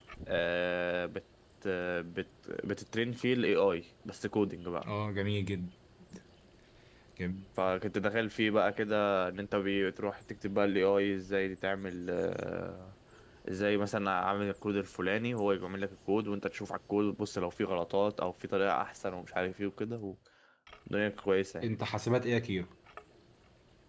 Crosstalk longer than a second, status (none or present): none